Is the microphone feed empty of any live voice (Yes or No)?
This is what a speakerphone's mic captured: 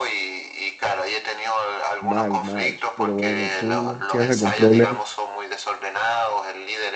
No